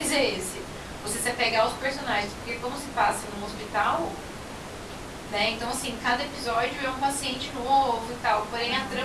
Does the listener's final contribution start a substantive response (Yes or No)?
No